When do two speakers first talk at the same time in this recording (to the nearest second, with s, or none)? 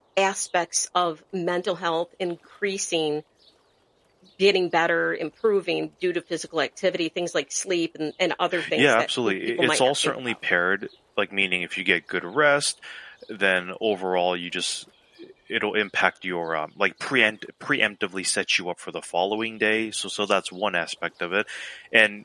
9 s